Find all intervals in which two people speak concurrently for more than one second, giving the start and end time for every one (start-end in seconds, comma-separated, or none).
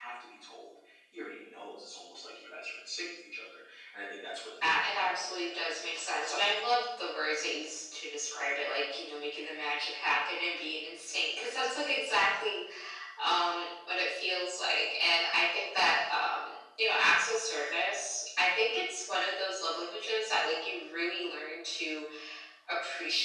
4.6-6.4